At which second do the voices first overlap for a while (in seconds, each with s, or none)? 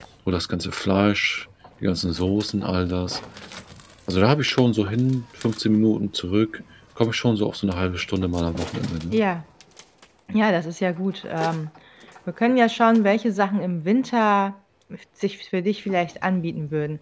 none